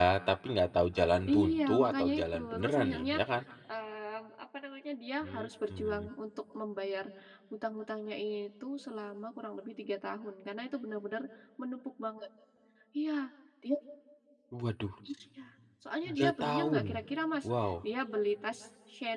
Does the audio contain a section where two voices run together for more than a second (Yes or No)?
Yes